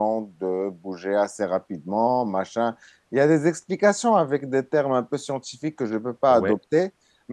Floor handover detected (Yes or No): No